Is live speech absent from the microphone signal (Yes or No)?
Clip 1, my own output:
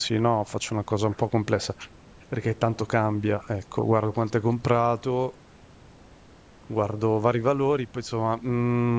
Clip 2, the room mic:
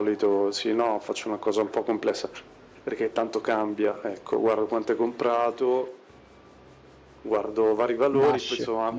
No